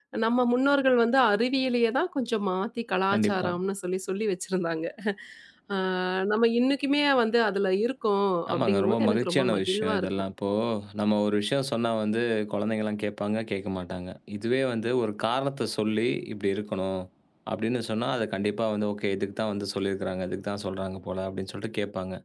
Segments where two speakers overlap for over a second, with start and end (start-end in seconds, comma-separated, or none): 8.5-10.1